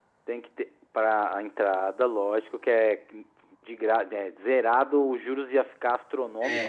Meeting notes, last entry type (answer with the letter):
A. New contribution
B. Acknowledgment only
A